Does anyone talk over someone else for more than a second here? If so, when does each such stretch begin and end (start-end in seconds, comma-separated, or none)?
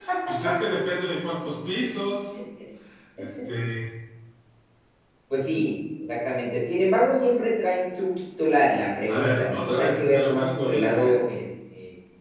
9.1-11.2